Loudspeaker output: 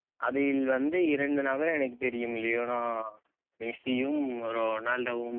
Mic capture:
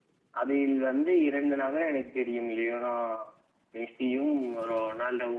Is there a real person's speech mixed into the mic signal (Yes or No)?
No